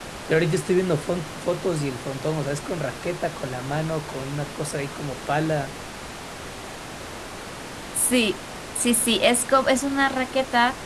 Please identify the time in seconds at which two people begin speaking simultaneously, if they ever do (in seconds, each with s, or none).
none